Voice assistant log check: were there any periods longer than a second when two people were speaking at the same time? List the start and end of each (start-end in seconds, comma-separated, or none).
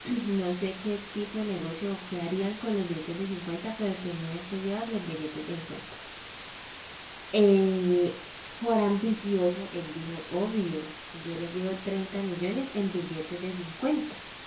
none